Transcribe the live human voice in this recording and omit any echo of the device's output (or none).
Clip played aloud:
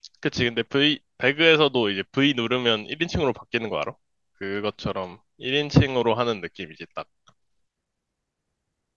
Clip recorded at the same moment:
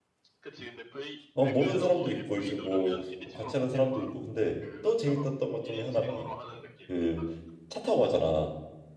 어, 모르는 사람도 있고 이제 뭐 뭐 같이 하는 사람도 있고 근데 또 재밌었던 것 중에 하나가 그 차 타고 가잖아